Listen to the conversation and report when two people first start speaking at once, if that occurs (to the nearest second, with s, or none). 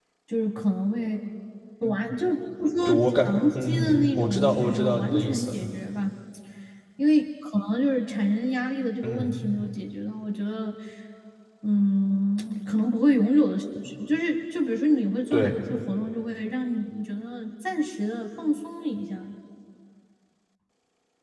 3 s